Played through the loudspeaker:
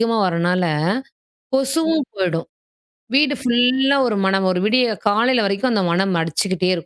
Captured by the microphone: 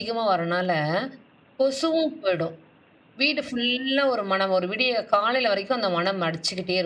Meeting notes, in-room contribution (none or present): none